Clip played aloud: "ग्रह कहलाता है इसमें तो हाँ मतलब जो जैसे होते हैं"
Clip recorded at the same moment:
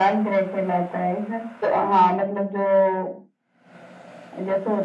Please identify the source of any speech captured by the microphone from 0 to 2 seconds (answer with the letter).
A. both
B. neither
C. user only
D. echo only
D